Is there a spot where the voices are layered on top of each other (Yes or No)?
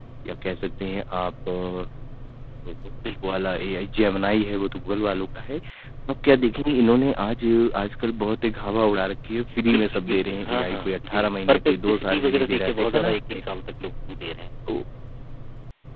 Yes